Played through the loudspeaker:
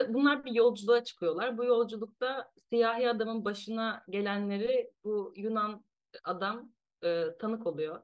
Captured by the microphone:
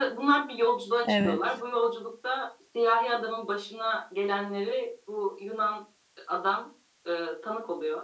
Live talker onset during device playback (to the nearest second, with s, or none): 1 s